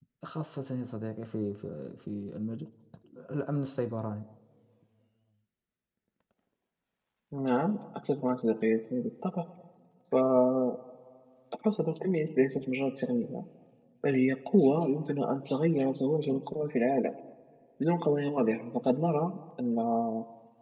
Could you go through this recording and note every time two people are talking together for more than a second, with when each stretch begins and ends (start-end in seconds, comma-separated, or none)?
none